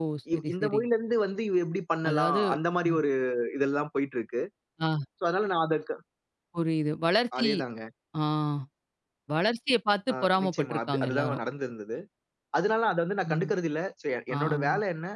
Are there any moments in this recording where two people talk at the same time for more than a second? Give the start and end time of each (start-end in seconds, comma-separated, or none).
10.1-11.4